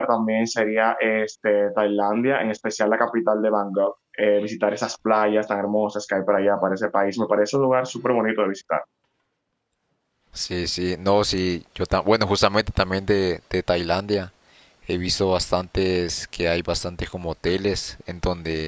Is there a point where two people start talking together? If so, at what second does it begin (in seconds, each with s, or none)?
none